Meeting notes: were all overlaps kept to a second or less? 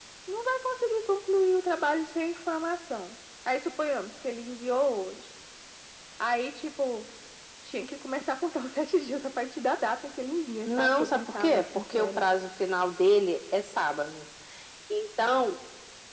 No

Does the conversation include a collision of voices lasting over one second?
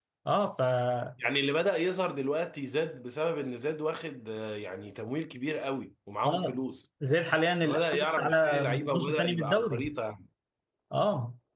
Yes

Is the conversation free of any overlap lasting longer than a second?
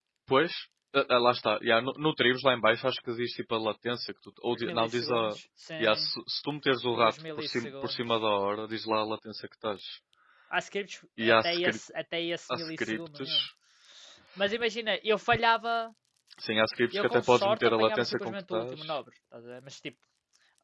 No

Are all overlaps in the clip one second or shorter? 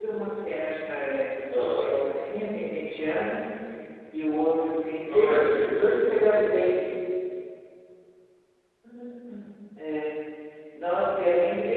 No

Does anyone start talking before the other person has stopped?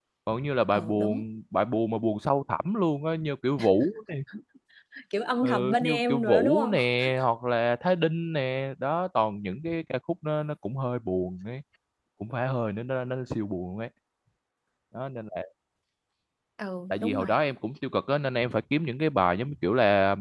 Yes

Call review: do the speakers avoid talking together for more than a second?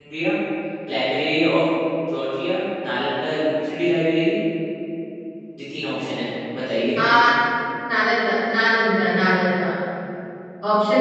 Yes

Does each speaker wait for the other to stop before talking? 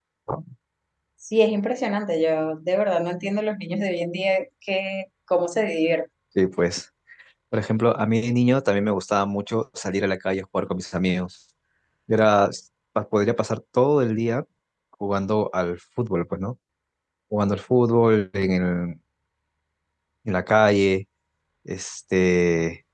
Yes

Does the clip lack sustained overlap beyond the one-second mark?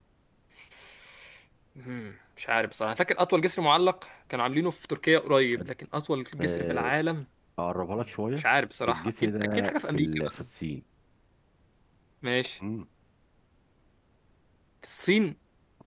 No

